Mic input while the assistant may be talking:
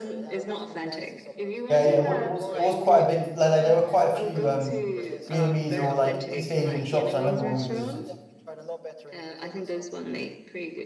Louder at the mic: user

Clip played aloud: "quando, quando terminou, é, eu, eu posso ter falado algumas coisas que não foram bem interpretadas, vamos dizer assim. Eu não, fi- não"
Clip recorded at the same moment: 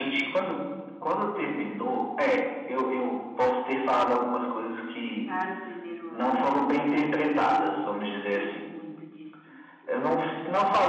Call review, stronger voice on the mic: echo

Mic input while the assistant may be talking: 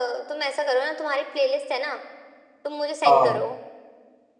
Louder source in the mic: user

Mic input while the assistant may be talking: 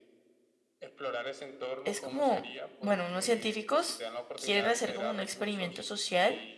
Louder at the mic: user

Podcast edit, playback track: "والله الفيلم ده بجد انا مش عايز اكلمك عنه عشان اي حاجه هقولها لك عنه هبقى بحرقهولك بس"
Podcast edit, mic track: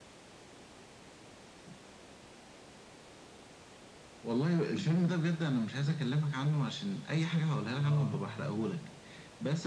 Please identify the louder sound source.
echo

